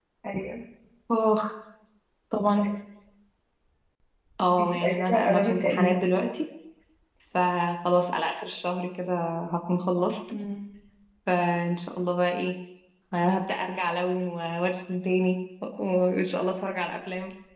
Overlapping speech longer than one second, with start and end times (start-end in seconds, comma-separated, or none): 4.6-6.0